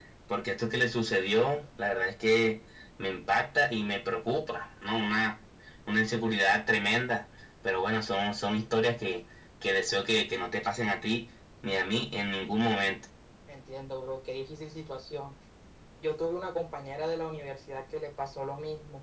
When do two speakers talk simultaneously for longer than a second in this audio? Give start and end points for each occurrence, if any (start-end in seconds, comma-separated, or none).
none